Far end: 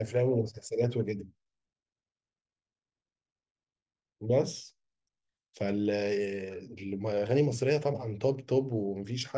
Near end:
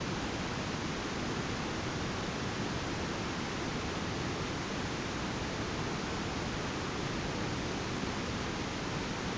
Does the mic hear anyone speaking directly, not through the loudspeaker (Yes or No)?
No